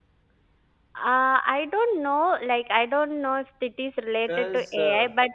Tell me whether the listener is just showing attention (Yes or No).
Yes